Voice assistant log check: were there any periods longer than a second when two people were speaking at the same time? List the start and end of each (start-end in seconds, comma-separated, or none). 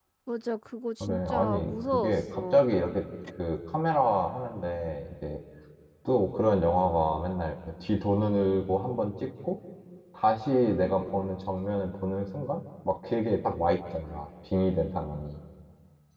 1.0-2.6